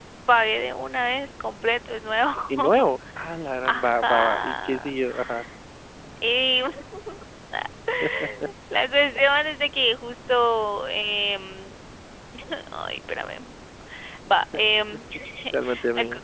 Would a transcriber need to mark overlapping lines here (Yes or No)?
Yes